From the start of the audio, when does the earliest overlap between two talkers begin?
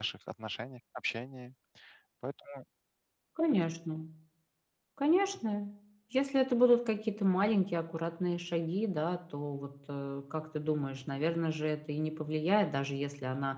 none

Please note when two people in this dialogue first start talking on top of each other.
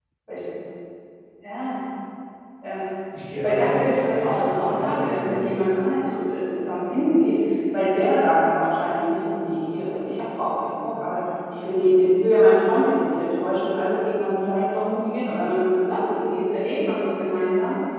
3 s

